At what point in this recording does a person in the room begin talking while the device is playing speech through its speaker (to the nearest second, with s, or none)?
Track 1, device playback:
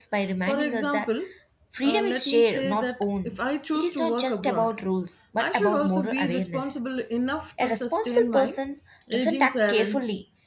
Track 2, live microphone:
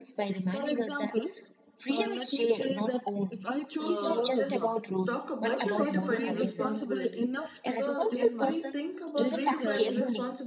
4 s